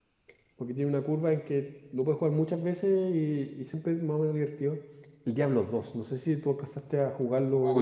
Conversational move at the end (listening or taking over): taking over